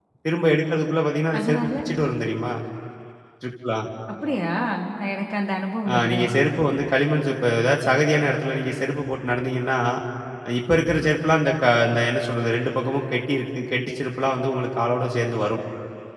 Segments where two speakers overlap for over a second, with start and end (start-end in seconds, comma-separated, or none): none